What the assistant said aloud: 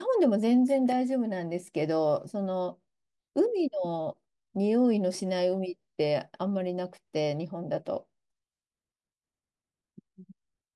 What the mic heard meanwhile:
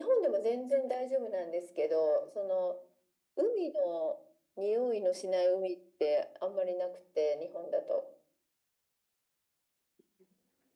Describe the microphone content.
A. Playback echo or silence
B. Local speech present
A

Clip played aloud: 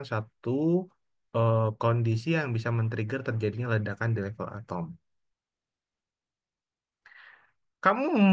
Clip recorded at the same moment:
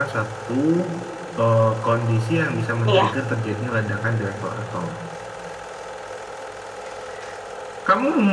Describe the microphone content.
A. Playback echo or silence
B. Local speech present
B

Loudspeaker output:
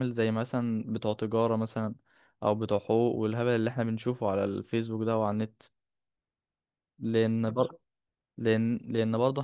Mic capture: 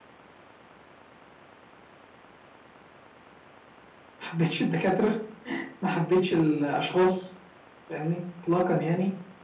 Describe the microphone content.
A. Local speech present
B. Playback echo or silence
A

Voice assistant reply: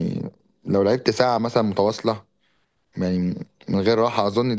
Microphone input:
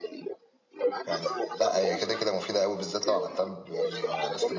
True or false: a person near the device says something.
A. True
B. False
A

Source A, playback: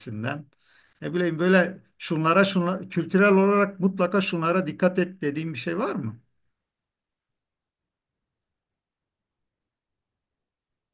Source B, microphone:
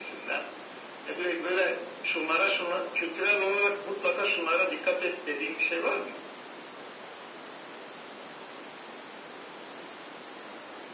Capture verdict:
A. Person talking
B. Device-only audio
B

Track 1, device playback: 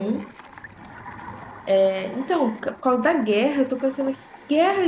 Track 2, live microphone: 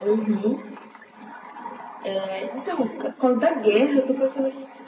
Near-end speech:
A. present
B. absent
B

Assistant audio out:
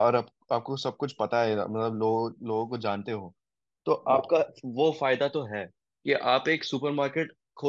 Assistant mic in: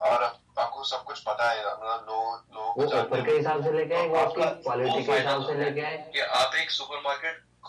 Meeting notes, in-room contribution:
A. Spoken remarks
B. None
A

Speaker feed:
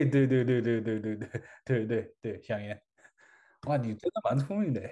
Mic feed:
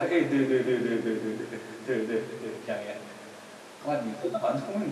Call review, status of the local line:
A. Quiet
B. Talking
A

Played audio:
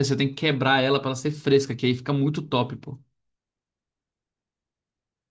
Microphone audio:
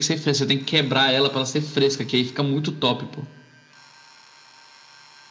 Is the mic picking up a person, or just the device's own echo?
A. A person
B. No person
B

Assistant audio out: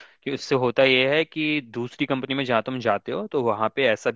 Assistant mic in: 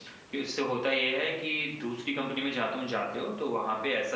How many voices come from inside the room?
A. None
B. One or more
A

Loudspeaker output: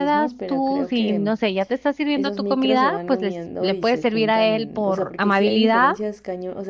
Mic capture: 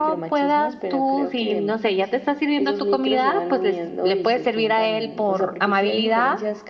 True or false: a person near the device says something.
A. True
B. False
B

